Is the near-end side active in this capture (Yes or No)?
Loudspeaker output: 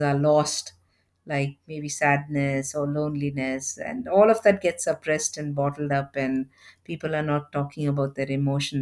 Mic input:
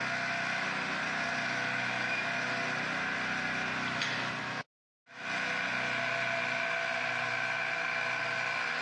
No